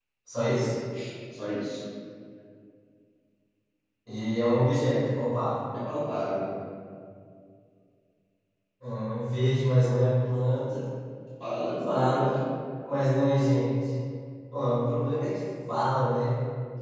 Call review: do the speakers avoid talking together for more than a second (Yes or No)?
Yes